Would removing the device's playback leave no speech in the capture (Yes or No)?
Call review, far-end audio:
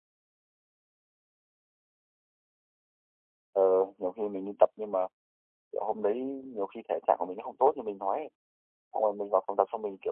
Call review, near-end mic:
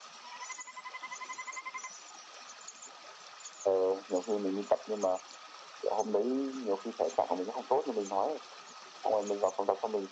Yes